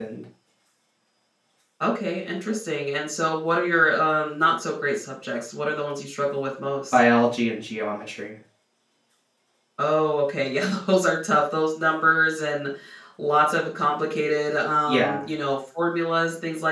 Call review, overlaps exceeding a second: none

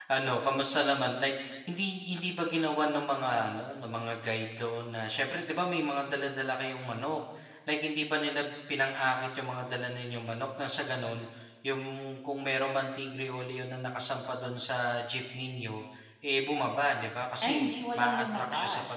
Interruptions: present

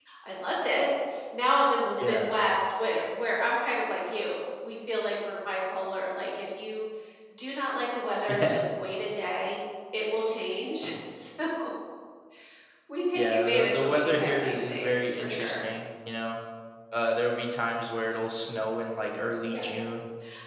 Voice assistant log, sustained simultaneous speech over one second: present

